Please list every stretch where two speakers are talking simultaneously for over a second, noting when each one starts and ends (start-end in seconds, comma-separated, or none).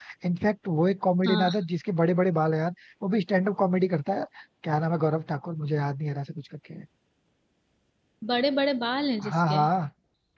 none